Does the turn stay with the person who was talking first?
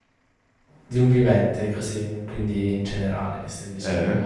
No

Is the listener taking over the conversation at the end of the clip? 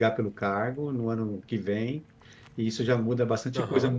No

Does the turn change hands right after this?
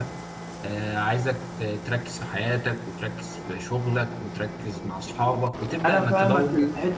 Yes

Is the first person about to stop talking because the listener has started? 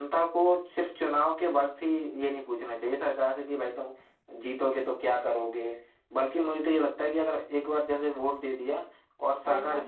No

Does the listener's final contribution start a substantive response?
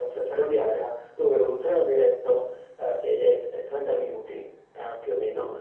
No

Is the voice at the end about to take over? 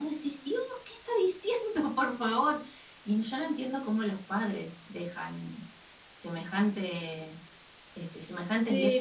Yes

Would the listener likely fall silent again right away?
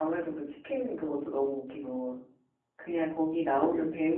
Yes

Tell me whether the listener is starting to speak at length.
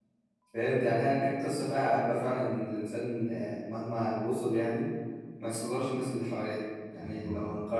No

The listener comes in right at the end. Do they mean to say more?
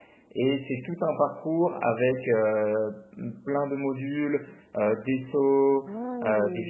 No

